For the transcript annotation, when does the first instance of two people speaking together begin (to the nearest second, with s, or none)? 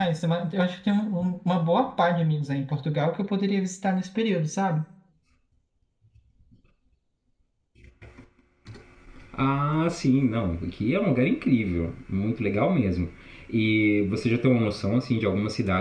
none